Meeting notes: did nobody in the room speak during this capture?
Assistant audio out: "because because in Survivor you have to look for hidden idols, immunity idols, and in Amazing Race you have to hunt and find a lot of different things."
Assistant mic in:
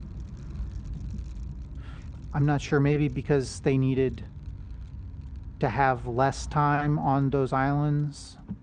No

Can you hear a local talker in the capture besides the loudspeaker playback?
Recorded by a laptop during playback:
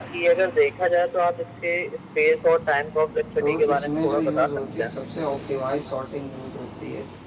Yes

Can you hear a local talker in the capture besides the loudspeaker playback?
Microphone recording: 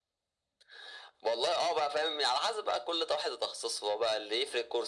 No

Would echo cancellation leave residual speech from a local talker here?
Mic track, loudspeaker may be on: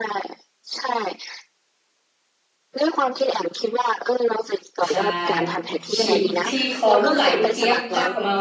Yes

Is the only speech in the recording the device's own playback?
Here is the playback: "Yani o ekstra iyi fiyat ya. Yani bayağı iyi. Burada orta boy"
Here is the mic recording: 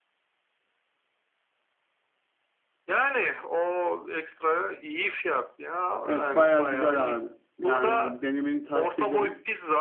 No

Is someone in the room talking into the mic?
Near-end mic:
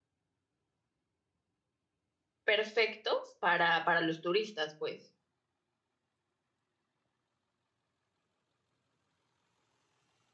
Yes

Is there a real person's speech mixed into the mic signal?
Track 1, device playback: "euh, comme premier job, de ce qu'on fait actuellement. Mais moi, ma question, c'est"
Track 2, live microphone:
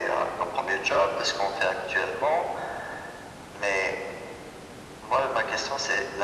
No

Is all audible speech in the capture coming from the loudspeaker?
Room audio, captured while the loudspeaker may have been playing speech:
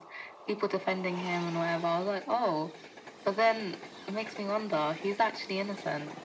Yes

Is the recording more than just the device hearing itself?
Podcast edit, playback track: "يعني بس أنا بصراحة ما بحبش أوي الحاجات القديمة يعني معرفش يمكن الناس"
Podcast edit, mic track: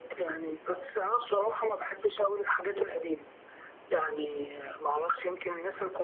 No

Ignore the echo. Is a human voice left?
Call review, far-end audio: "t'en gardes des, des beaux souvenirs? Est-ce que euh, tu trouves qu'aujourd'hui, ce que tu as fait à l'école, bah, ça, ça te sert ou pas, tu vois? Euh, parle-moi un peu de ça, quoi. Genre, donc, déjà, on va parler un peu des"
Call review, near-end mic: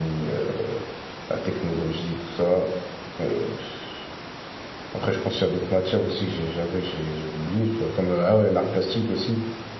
Yes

